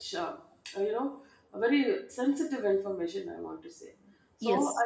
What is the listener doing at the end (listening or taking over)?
listening